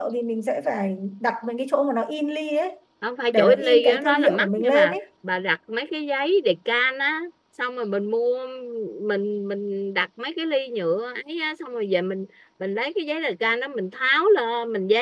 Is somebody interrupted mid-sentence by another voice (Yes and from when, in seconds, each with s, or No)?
Yes, from 3.3 s